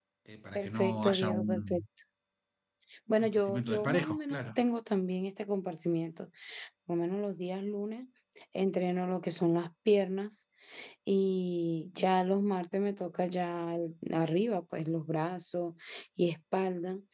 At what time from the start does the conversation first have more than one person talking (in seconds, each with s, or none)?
0.6 s